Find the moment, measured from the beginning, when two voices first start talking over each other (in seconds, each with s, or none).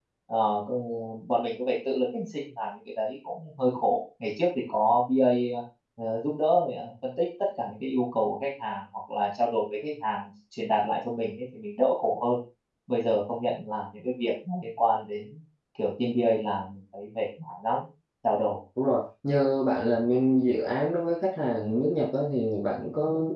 none